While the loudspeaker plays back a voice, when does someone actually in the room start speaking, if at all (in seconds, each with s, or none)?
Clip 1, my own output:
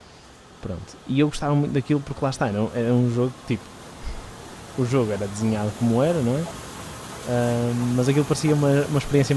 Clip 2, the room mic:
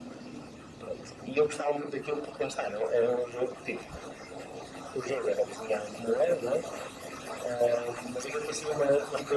none